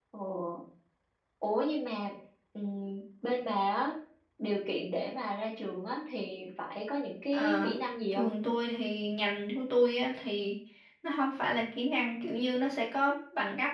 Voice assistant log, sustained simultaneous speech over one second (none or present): none